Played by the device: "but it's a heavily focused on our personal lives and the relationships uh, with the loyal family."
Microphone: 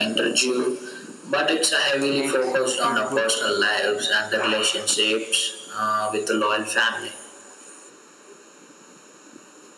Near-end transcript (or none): makes you feel good.